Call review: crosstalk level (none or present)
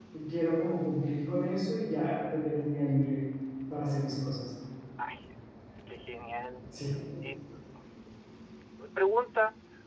none